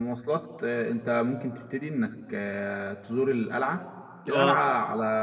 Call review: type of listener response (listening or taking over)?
listening